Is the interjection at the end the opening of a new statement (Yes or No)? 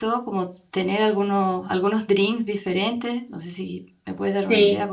Yes